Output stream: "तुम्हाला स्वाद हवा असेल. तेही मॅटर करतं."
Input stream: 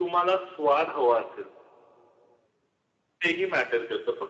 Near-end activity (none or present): none